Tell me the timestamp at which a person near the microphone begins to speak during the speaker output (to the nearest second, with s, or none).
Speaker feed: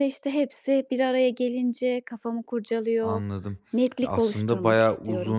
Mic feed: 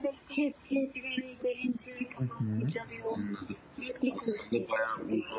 2 s